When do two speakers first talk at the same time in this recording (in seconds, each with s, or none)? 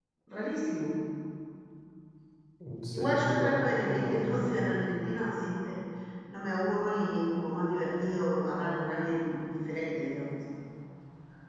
2.9 s